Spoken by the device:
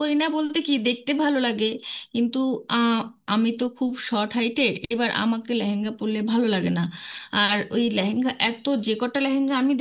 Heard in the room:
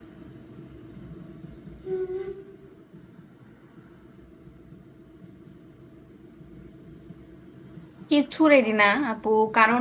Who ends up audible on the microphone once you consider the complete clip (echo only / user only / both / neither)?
user only